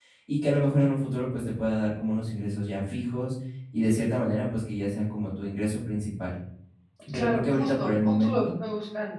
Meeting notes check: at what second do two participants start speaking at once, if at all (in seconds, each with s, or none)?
7.1 s